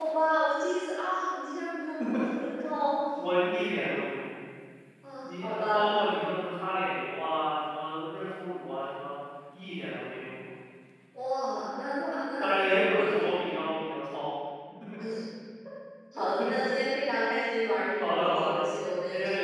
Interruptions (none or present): present